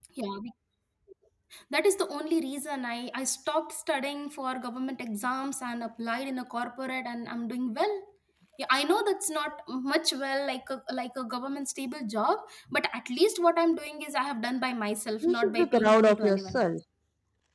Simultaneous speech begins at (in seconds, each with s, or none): 15.2 s